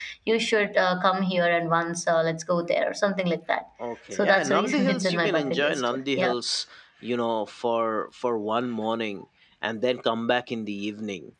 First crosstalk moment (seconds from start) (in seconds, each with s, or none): 4.1 s